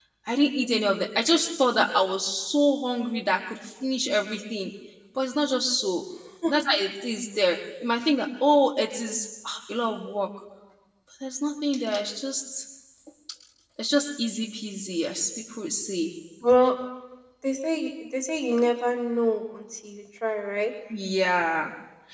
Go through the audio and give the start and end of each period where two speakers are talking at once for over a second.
none

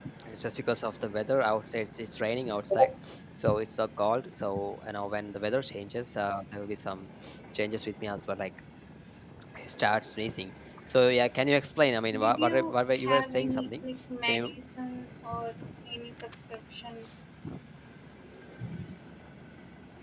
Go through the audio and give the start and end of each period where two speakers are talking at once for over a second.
12.2-13.7

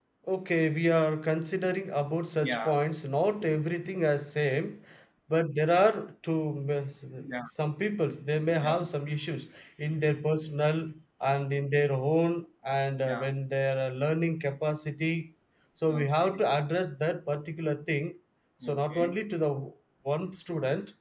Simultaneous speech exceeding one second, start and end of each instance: none

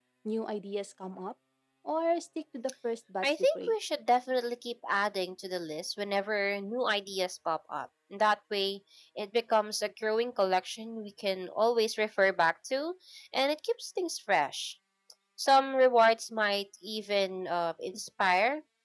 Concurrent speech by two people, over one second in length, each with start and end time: none

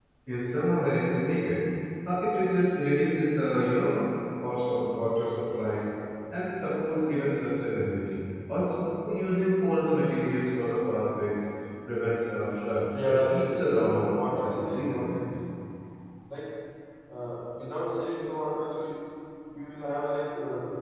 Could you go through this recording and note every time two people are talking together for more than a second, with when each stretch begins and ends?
12.9-15.2

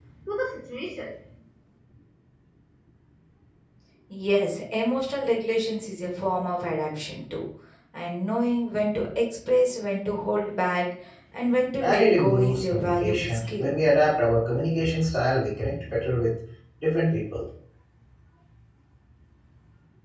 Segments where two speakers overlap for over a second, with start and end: 11.8-13.7

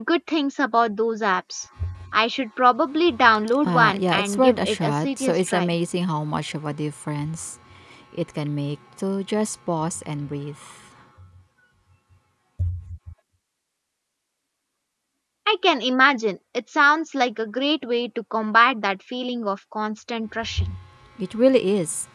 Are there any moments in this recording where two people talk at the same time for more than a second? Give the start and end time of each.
3.6-5.7

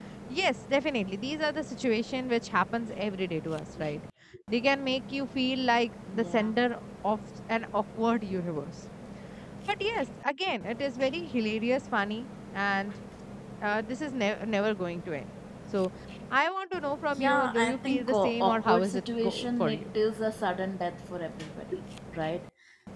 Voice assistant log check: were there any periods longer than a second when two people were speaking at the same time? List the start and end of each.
17.1-19.9

